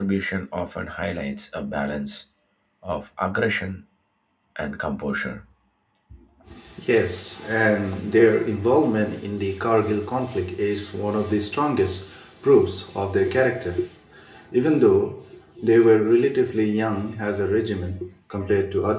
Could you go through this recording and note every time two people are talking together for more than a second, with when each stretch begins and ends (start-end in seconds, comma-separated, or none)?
none